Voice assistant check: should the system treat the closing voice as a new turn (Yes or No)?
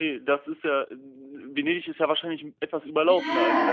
Yes